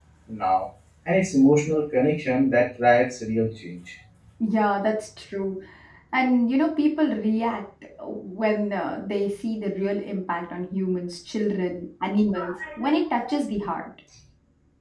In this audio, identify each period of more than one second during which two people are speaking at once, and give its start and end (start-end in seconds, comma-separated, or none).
none